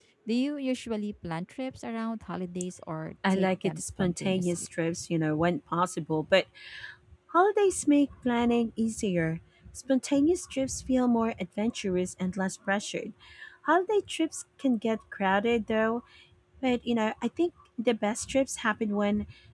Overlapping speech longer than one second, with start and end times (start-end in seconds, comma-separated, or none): 3.3-4.7